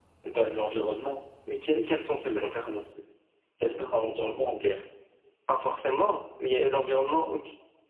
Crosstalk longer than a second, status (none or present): none